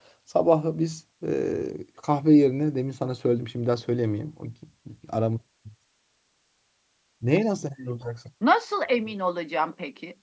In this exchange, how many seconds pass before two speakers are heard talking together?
none

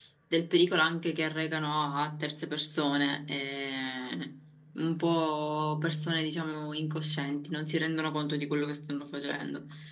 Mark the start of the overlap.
none

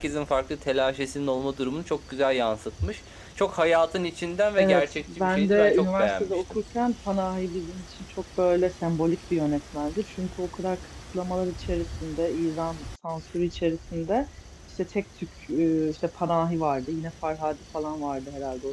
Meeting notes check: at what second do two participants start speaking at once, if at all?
4.6 s

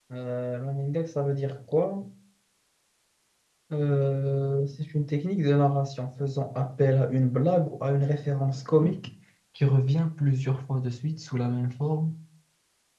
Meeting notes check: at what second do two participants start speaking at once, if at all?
none

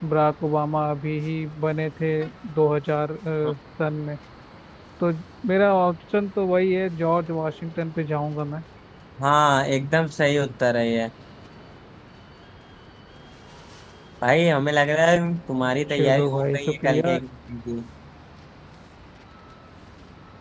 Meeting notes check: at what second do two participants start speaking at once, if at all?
15.9 s

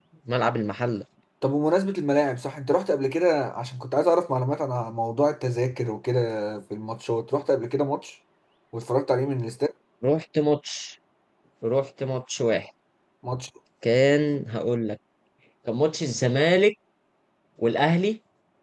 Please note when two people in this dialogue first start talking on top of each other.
none

